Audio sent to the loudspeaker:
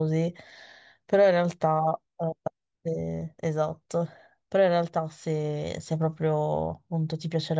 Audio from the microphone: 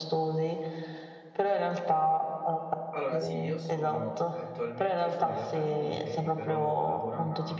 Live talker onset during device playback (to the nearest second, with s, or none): 3 s